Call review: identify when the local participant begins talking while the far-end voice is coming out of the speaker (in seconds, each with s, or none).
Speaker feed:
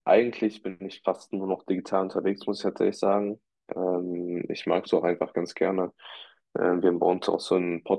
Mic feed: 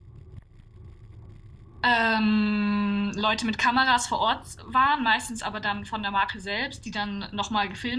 1.8 s